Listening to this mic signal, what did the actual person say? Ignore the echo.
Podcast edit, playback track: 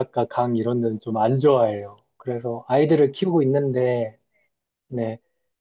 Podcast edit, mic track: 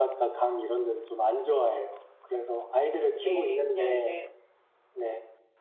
예, 그냥 이제,

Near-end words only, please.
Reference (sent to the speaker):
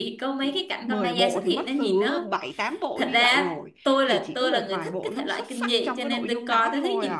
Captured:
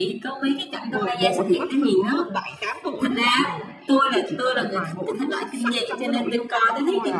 none

